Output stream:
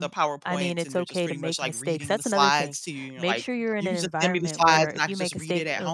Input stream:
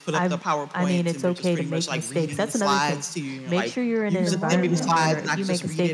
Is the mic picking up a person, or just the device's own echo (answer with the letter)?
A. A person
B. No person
A